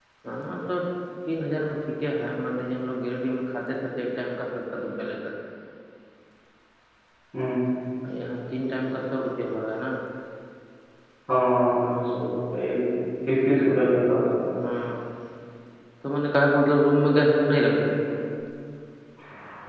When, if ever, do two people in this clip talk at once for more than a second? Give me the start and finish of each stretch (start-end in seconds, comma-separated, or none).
none